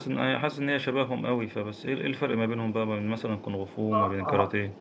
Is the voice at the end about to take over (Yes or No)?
Yes